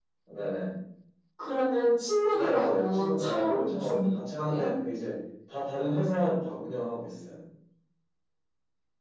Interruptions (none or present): present